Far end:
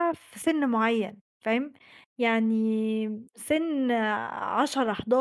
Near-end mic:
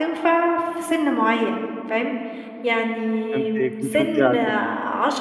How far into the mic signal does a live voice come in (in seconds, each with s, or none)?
3.3 s